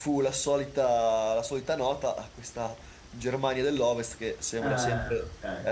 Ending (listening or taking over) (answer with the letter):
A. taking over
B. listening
B